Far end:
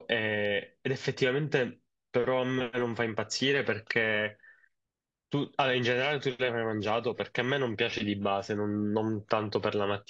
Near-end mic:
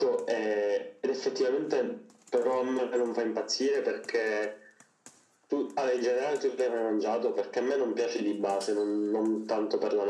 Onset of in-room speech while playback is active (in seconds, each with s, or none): none